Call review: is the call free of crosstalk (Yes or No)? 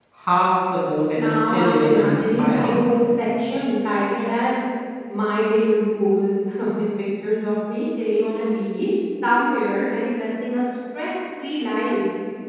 No